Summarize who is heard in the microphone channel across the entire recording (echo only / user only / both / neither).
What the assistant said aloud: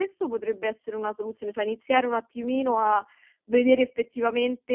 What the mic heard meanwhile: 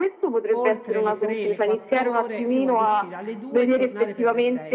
both